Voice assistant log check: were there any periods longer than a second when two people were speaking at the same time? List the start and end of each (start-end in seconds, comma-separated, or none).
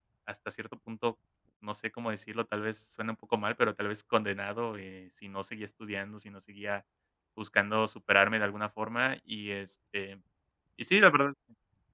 none